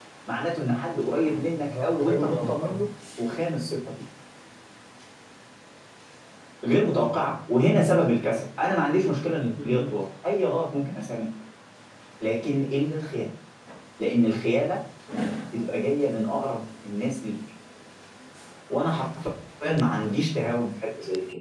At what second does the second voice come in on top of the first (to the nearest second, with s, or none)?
2 s